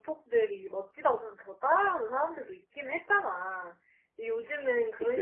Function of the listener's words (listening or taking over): listening